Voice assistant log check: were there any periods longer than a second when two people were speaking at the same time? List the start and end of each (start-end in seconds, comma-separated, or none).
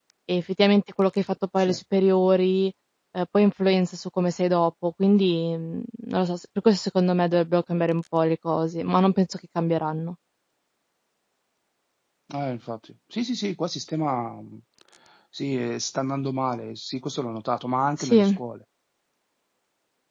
none